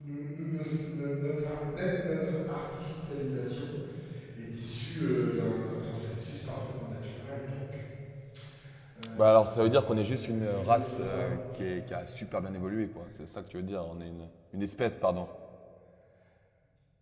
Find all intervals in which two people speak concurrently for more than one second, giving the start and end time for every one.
9.2-11.2

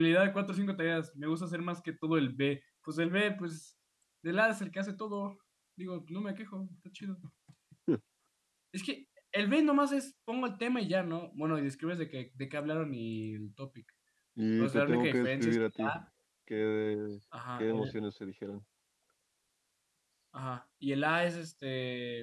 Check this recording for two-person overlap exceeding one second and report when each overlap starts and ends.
14.6-15.9

